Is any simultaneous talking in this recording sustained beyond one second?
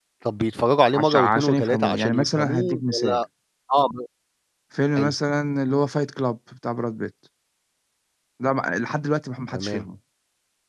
Yes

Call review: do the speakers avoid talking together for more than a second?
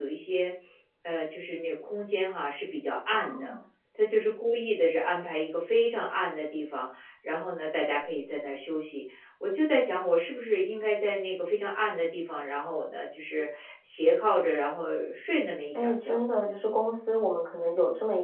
Yes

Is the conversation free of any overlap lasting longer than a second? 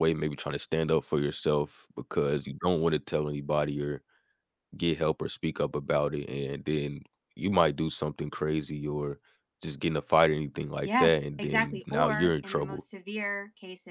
No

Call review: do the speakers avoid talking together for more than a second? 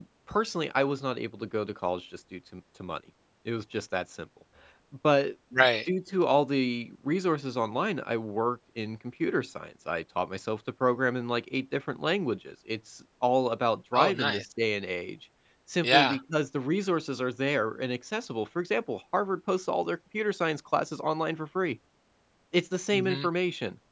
Yes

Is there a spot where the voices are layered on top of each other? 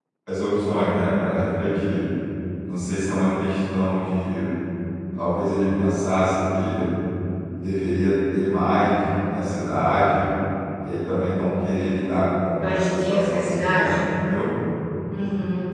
Yes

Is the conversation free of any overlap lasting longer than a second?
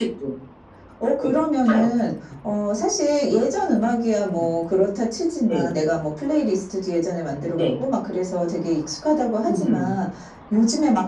Yes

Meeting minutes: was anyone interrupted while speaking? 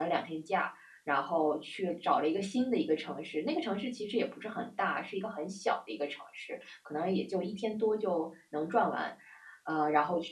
No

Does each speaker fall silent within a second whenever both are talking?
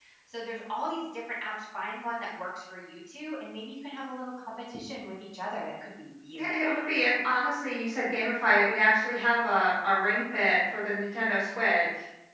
Yes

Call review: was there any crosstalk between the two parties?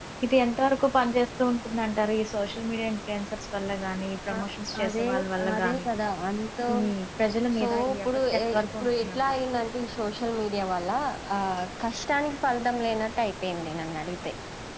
Yes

